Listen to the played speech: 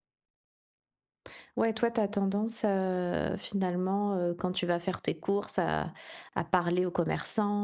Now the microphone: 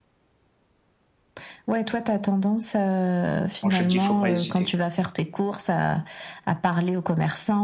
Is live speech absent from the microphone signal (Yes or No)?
No